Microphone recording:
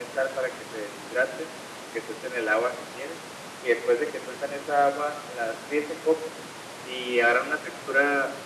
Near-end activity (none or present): none